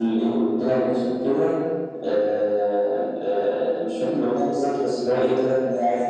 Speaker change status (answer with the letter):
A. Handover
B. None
A